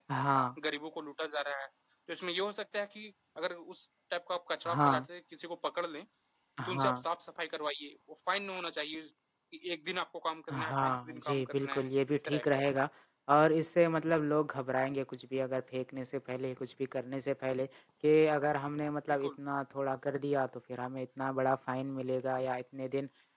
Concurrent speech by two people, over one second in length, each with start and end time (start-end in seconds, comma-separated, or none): 10.5-12.6